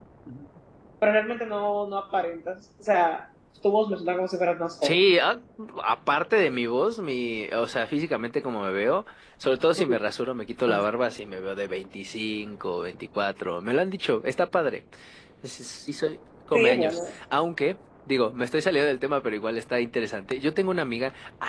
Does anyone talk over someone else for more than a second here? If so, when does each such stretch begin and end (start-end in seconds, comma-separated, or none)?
none